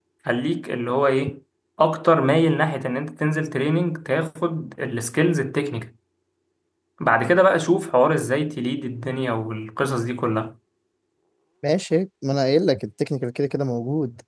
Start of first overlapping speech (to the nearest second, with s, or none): none